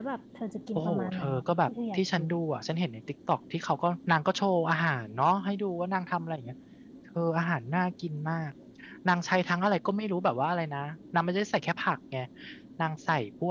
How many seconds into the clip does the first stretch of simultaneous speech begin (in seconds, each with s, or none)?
0.8 s